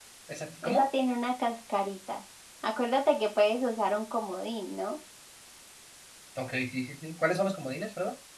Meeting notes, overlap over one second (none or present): none